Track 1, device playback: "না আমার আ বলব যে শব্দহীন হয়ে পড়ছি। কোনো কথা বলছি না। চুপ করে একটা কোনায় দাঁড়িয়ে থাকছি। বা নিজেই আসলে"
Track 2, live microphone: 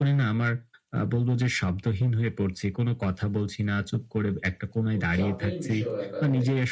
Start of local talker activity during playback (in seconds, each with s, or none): 4.9 s